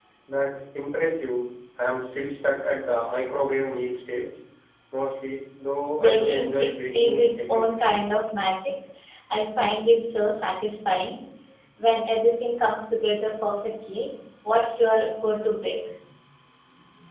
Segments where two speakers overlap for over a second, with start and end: 6.0-7.6

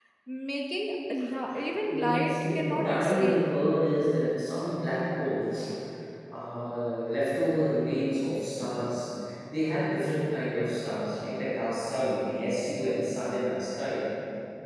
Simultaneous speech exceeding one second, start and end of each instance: 1.6-3.4

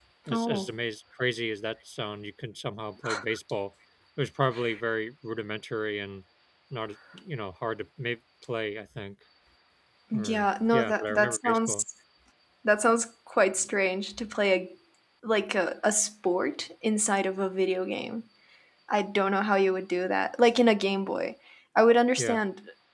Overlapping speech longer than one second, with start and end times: 10.1-11.8

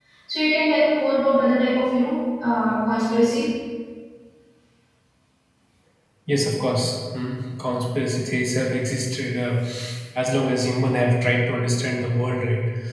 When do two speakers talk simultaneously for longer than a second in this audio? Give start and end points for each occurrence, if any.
none

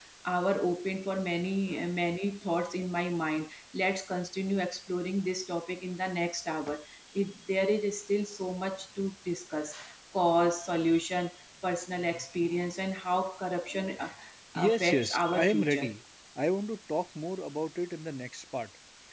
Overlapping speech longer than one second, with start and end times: 14.7-15.9

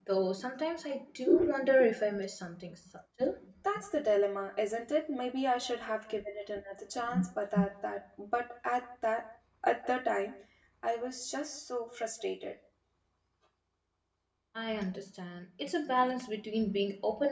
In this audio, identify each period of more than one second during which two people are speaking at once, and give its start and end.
none

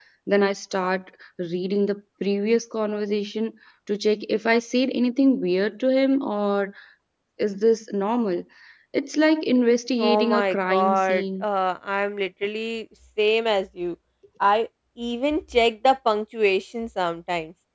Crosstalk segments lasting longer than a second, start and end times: 10.0-11.4

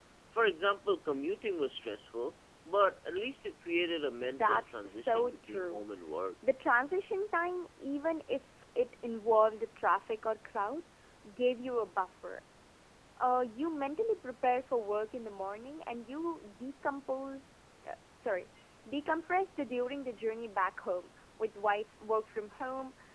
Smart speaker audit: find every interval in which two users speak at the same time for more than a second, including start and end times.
4.2-5.8

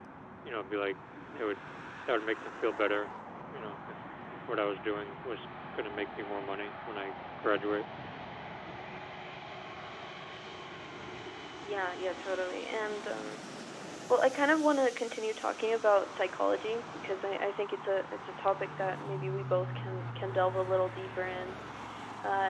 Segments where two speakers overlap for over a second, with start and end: none

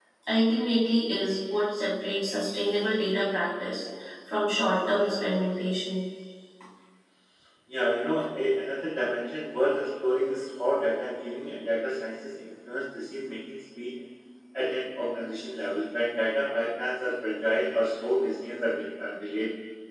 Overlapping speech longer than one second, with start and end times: none

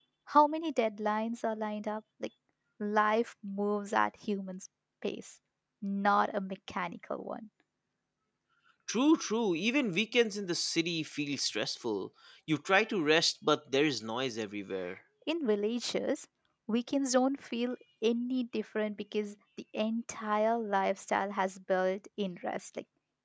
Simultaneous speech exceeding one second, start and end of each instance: none

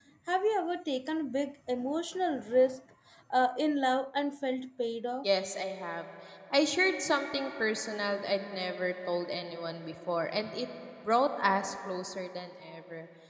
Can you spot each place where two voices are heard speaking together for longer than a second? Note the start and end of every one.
none

